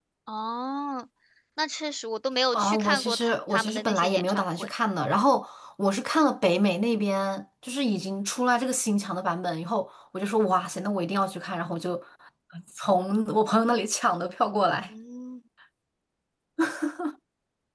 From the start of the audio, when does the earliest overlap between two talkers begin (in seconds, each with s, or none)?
2.5 s